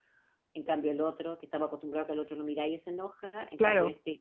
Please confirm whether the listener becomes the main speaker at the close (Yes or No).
No